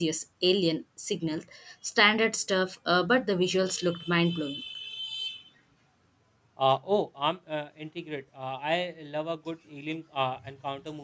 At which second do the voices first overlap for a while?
none

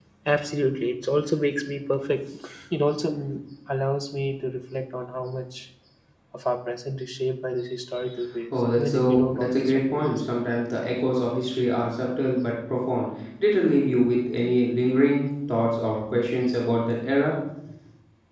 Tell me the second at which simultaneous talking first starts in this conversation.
8.8 s

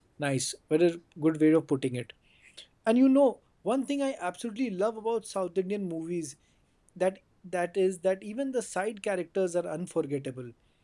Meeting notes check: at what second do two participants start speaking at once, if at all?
none

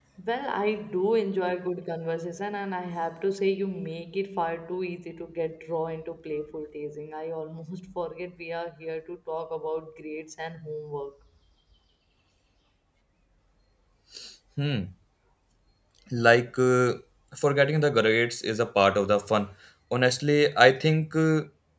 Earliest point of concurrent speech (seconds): none

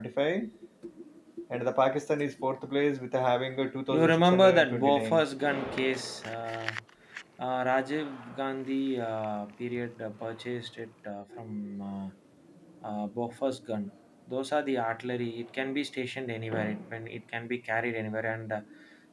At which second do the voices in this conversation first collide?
3.9 s

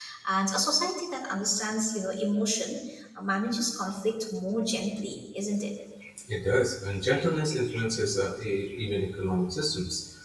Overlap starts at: none

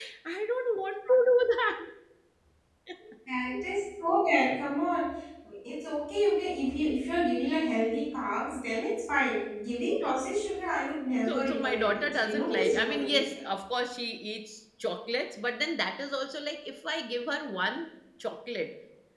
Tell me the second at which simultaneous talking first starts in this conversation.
11.2 s

